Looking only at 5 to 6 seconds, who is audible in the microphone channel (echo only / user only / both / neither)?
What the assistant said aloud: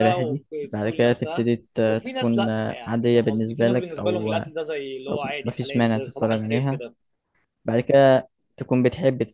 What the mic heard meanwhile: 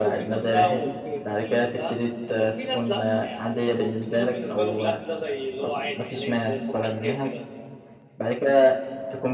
echo only